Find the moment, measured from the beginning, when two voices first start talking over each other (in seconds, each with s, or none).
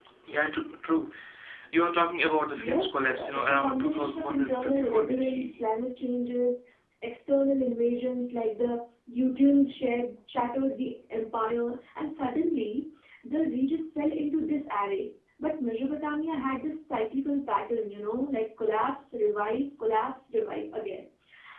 2.5 s